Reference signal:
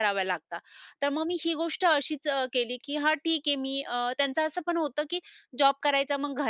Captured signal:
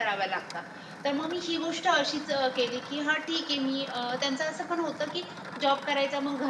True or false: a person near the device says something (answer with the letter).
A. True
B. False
B